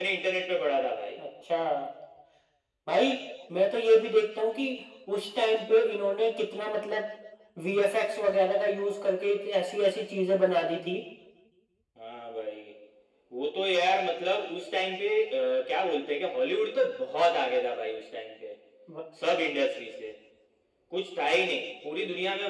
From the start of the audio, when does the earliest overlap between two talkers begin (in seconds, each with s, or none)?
none